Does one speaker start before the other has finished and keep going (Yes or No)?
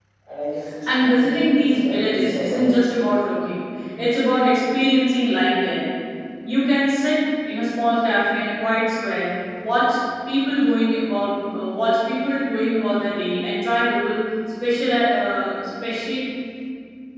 Yes